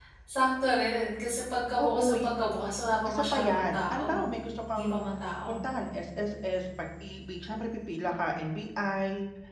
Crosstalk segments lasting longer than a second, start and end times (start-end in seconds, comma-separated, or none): 3.0-4.2